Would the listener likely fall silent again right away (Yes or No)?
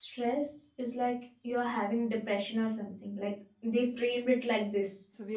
No